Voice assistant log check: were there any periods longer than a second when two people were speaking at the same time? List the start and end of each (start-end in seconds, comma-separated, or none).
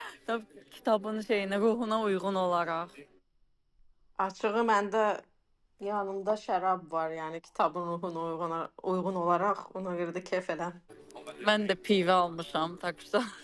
none